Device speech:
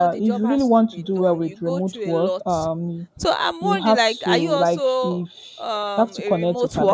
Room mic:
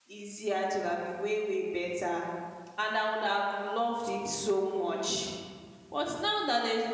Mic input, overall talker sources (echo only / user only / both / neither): user only